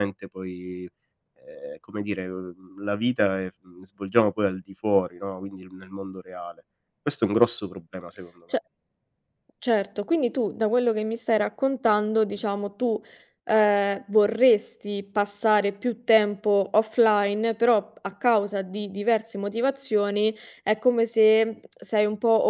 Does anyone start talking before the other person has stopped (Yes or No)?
No